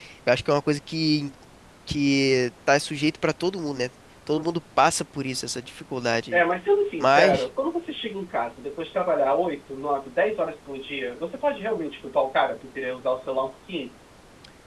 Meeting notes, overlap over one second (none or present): none